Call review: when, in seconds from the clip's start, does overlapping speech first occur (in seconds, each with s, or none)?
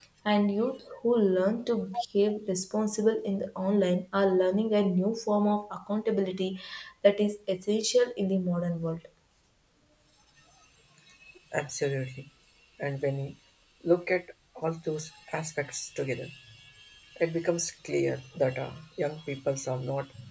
none